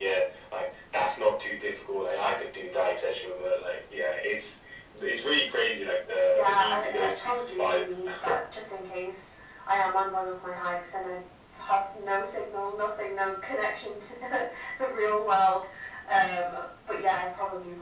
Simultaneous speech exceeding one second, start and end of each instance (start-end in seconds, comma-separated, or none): 6.3-7.8